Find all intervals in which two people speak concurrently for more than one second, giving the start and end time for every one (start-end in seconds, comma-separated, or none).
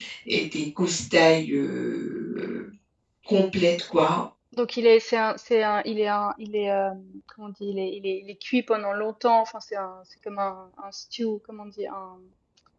none